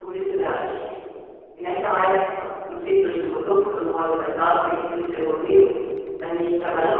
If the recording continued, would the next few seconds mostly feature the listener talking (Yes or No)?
No